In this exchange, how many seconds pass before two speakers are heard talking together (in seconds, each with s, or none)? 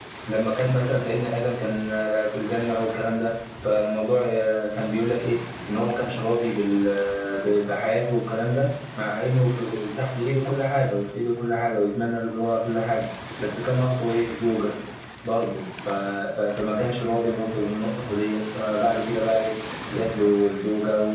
none